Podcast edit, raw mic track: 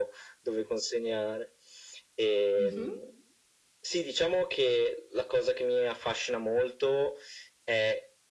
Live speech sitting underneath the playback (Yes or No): Yes